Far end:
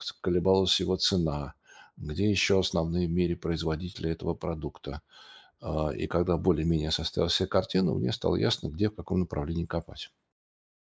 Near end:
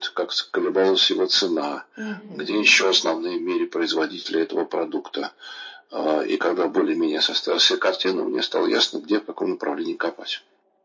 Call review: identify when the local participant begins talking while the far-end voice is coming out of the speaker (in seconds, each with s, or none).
2.0 s